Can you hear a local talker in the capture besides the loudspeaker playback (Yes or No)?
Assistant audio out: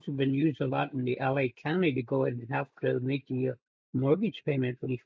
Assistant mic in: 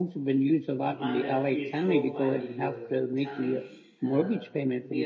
Yes